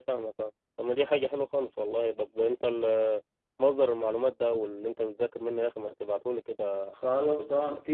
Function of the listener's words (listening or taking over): taking over